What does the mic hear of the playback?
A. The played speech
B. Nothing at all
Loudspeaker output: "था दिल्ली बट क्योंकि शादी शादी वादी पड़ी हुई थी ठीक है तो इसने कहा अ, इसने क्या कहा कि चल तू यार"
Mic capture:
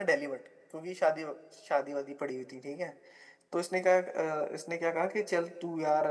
A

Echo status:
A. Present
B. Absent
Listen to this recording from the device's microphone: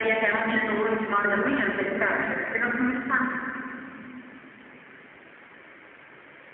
A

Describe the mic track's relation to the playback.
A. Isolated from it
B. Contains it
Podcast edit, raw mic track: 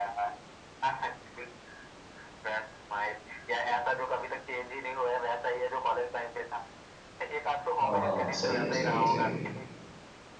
B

